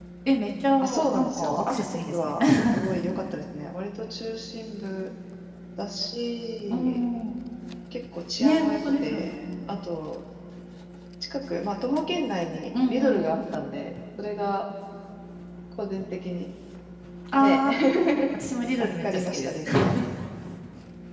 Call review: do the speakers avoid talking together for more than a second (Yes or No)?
No